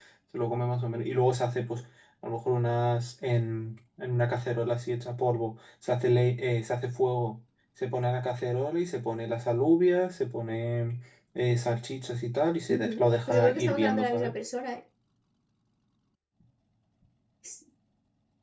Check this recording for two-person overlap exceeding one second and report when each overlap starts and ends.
12.7-14.3

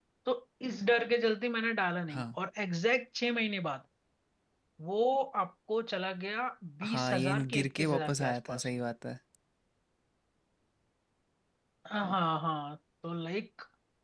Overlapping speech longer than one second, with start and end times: 6.8-8.7

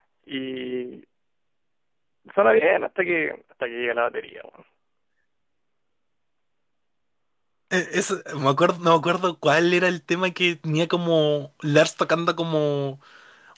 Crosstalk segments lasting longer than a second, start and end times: none

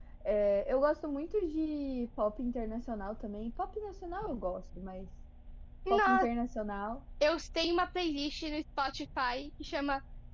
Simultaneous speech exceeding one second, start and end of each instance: none

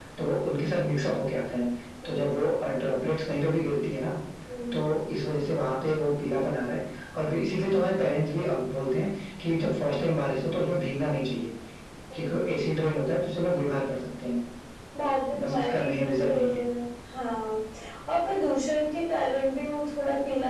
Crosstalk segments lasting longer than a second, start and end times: 15.4-16.6

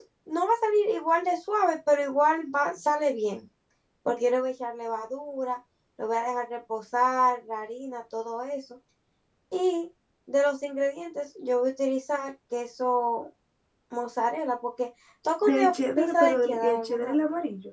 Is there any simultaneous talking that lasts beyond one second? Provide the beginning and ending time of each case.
15.4-17.2

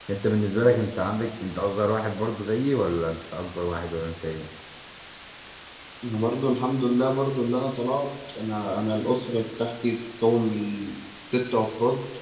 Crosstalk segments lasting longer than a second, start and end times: none

